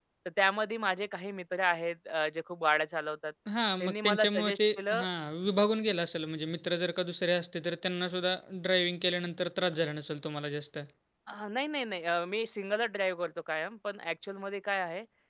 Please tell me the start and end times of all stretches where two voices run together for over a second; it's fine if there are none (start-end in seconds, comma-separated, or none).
3.8-5.0